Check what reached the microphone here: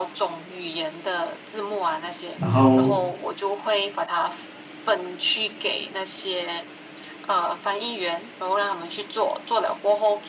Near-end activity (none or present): present